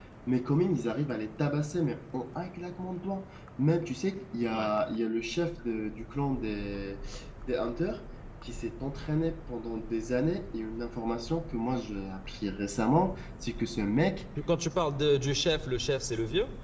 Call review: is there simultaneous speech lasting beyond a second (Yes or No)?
No